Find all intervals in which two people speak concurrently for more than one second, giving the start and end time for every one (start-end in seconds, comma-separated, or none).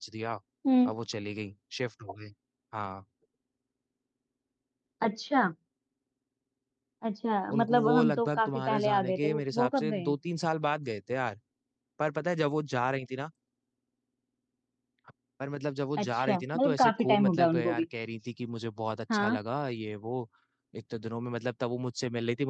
7.5-10.1, 16.0-17.9